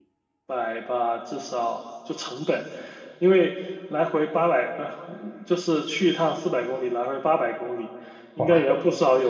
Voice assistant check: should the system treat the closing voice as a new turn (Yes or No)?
No